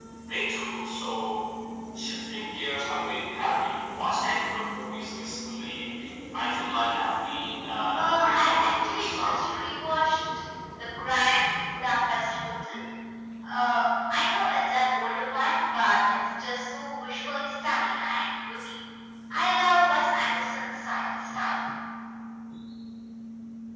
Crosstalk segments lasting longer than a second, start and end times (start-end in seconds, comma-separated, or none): 7.9-9.4